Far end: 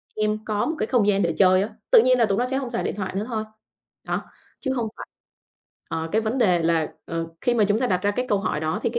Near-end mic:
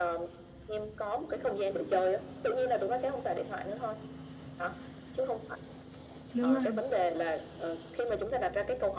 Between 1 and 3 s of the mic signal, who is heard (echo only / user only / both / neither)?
echo only